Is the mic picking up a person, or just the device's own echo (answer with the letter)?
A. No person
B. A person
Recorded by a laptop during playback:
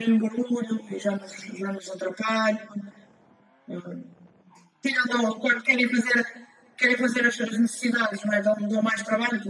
A